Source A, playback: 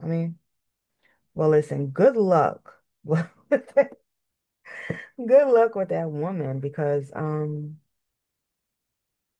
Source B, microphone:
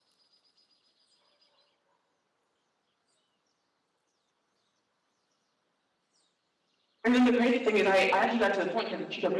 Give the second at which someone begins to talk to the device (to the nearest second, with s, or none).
7 s